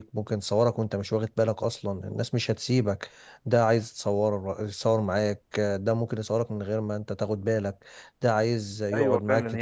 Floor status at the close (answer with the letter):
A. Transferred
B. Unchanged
A